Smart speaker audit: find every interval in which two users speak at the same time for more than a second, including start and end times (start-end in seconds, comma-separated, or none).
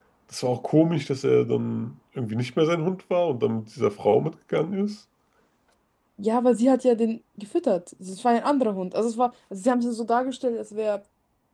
none